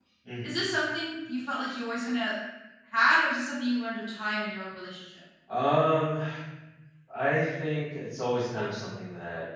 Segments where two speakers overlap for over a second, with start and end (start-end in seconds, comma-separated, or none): none